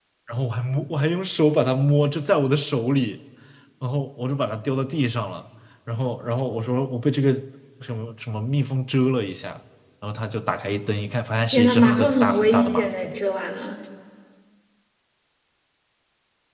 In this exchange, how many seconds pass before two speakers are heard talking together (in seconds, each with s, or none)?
11.5 s